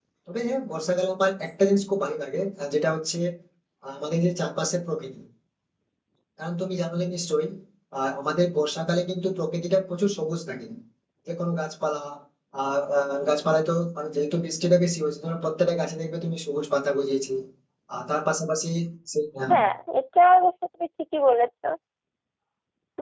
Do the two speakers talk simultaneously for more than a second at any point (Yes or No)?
No